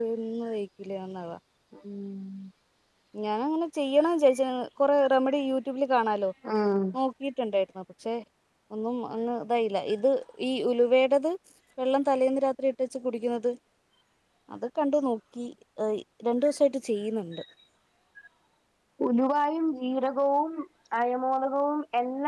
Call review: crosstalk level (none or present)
none